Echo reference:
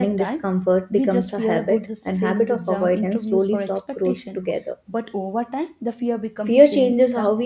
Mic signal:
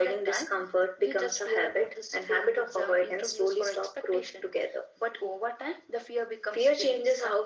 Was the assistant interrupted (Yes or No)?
No